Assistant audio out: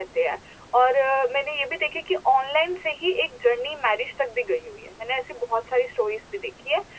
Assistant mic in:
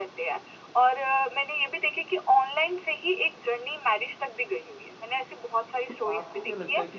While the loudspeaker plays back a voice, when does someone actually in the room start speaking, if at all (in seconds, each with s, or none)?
5.9 s